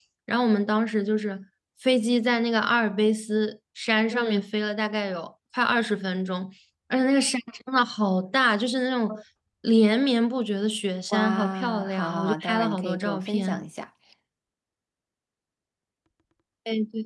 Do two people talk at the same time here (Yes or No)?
Yes